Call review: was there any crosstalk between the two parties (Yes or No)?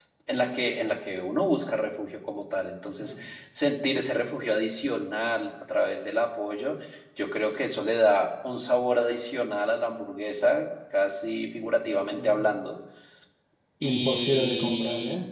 Yes